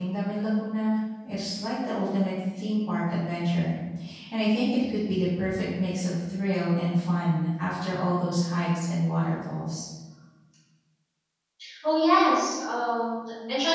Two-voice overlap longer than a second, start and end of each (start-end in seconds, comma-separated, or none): none